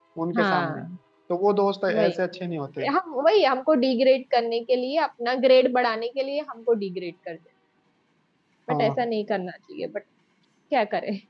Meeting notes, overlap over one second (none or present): none